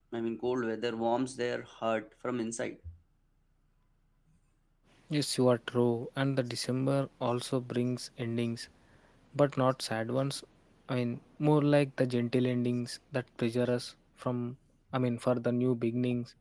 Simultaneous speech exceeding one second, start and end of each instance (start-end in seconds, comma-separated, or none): none